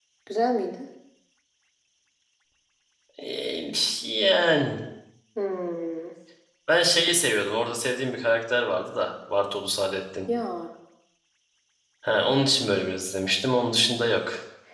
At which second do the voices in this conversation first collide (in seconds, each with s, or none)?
none